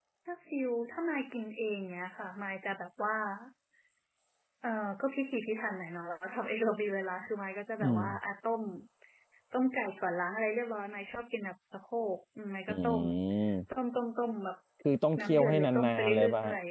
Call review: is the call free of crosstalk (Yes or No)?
No